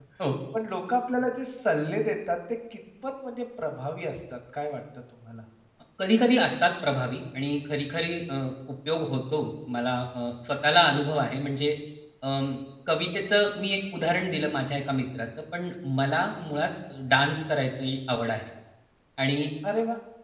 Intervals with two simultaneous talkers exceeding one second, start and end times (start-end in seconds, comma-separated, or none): none